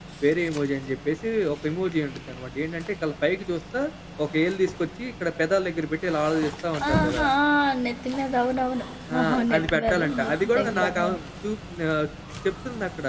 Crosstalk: present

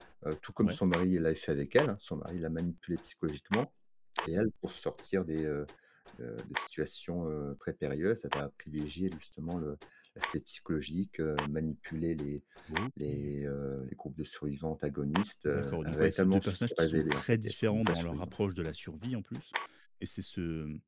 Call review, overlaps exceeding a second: present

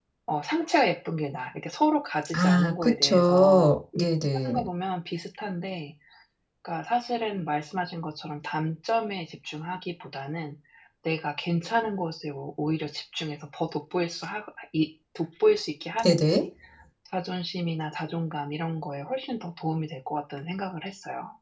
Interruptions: present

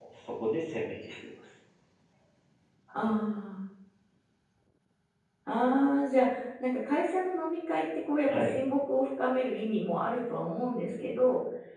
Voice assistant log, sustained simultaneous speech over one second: none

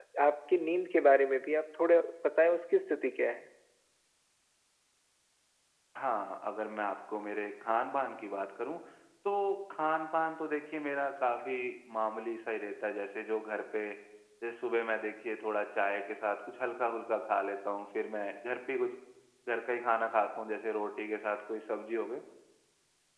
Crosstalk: none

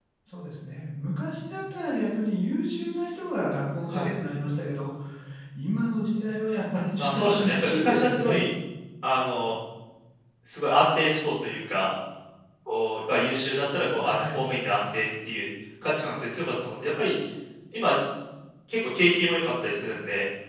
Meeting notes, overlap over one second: present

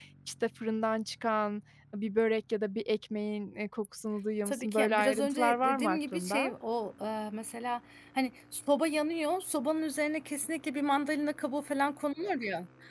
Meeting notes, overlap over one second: present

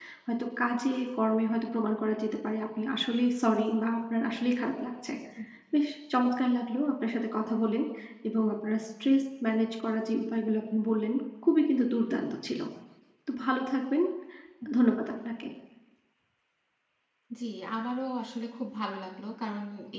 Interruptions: none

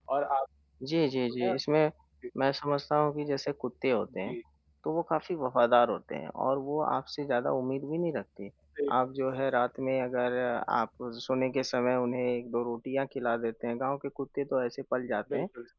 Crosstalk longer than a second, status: none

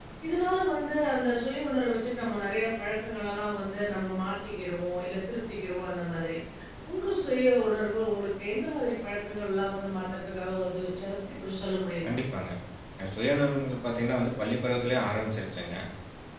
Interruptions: none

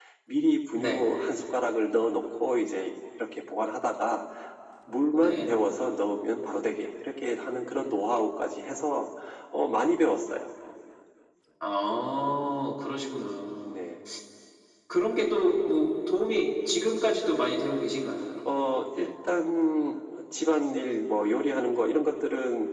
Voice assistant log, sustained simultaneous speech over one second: none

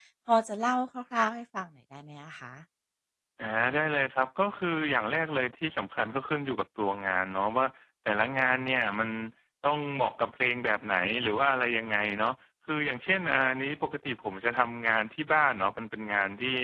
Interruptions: none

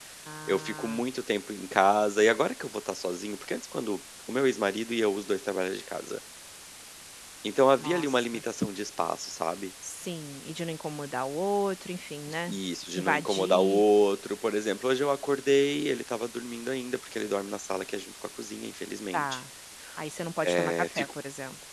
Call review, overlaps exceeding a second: present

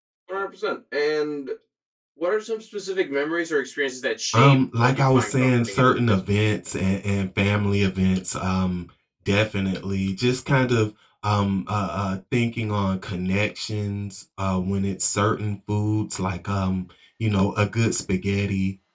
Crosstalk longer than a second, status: present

